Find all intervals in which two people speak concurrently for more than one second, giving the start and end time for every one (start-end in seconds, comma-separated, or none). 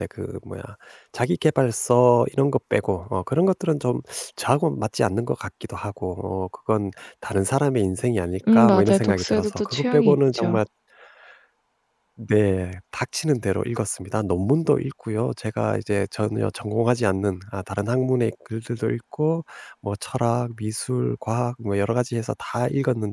8.5-10.6